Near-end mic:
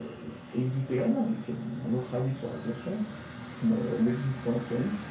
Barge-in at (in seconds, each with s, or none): none